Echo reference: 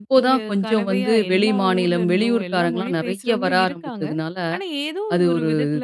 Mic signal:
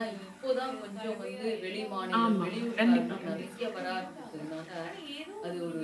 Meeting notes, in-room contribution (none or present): present